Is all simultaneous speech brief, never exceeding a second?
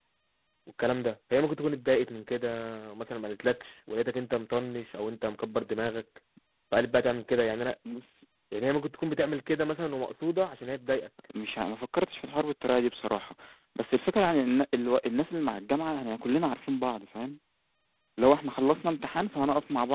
Yes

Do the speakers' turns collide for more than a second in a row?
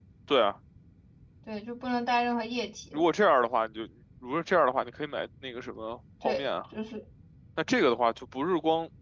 No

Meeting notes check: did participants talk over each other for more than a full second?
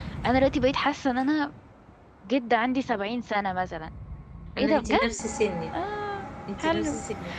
No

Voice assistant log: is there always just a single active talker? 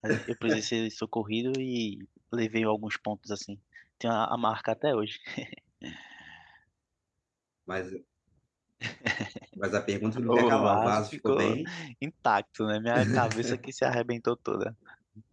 No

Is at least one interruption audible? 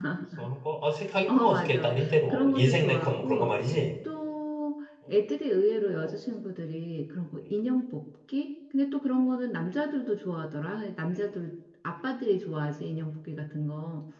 Yes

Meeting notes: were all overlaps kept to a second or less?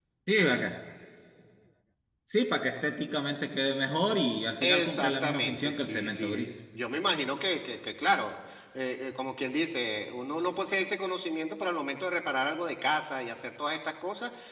No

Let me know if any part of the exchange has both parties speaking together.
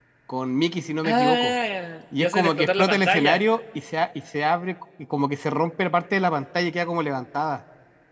Yes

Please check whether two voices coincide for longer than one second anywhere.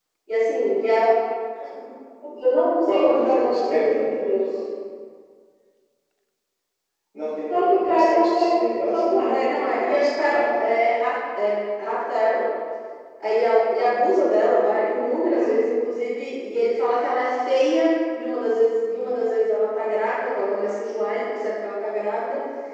Yes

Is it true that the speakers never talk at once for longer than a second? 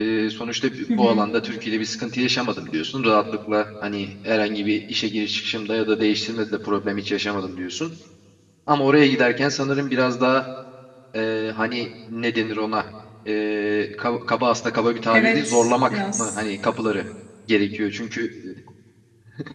No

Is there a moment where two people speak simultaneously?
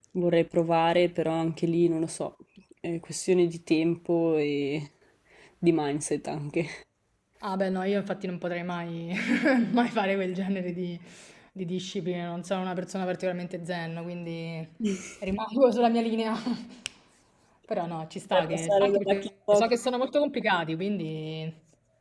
Yes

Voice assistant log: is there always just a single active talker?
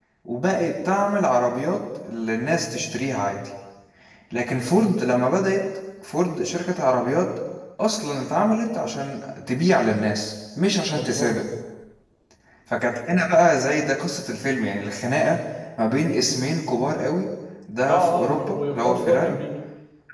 No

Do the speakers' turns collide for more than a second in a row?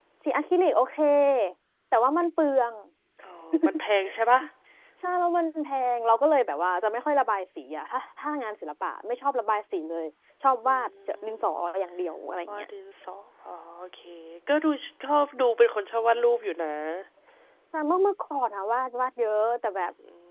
No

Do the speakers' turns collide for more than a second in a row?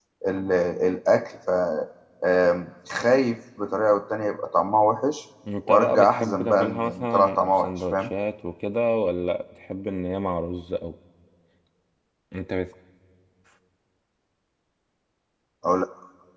Yes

